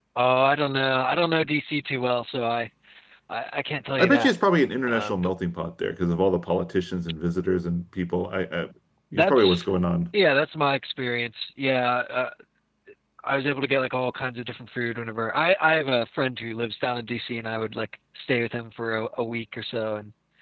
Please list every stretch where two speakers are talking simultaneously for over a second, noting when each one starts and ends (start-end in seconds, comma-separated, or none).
none